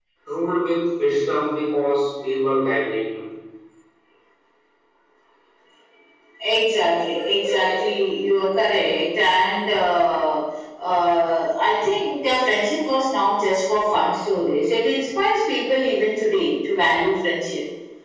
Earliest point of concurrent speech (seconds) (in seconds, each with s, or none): none